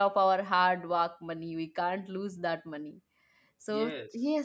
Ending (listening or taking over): listening